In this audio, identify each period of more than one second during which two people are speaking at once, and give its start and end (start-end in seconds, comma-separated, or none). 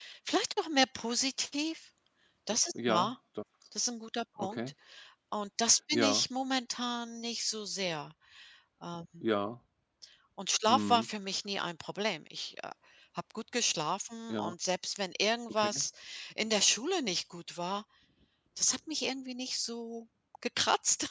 none